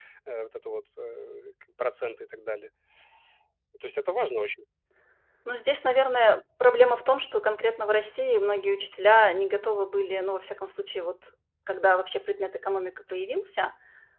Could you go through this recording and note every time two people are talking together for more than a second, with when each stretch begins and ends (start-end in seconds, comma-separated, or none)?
none